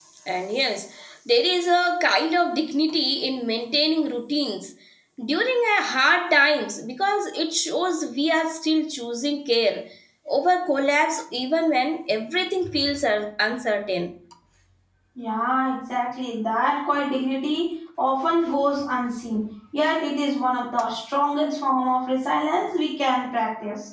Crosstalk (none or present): none